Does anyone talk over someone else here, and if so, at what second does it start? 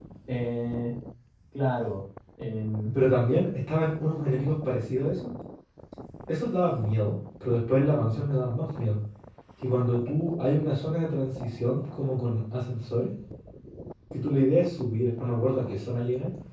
none

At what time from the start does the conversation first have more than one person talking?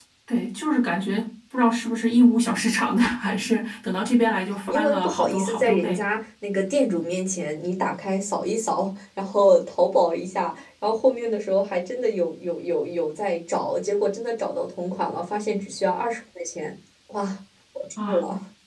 4.7 s

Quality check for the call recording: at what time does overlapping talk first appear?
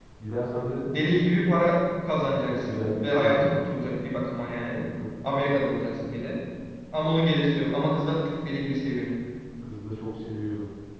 2.2 s

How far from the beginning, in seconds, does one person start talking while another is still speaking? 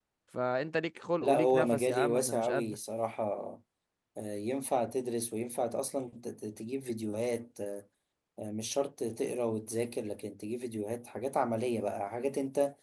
1.2 s

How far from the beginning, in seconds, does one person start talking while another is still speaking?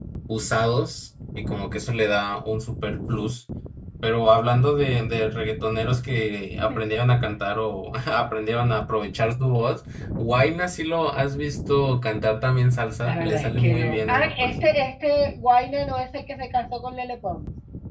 13.0 s

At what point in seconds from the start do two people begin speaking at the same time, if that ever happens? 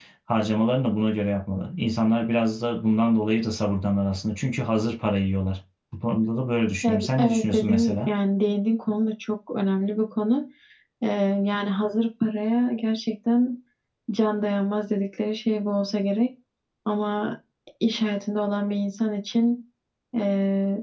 6.8 s

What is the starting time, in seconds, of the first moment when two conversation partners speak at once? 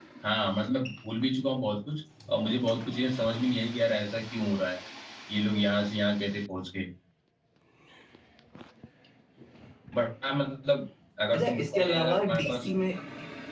11.3 s

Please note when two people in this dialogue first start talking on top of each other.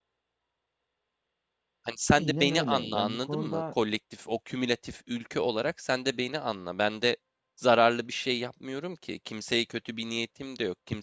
2.1 s

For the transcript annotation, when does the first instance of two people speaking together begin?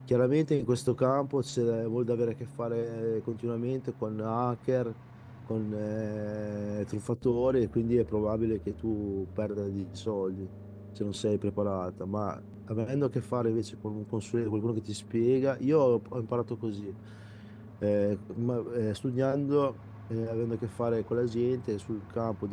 none

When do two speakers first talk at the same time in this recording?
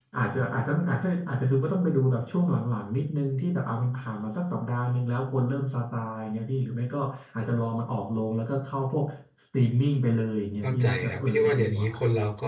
10.6 s

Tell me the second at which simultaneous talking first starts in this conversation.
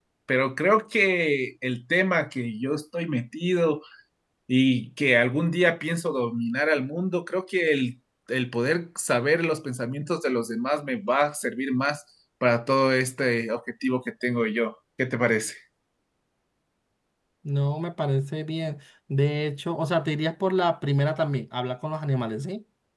none

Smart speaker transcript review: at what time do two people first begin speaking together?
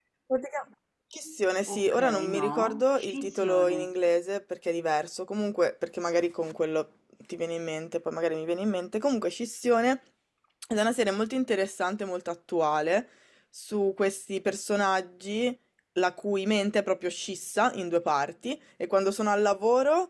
1.7 s

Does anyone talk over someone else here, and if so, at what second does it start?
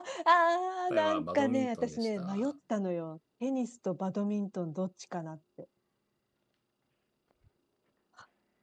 0.9 s

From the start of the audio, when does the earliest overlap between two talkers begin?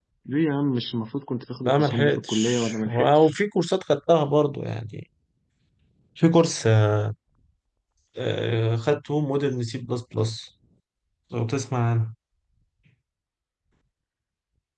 1.6 s

